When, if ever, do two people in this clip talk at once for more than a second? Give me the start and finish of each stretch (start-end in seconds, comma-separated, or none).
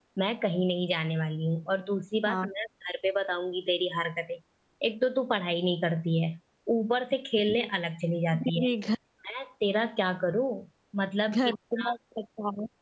none